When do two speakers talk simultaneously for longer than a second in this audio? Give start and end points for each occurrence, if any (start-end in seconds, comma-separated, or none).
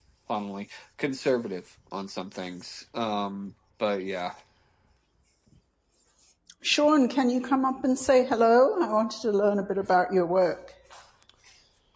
none